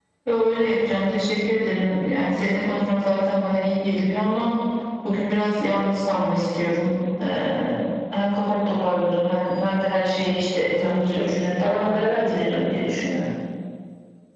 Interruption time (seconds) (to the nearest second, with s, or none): 11 s